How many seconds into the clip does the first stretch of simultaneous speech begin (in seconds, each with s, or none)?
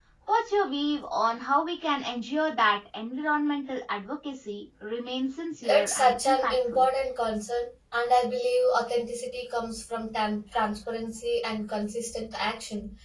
5.6 s